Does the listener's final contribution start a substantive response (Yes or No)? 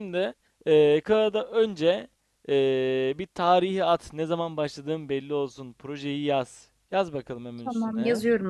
Yes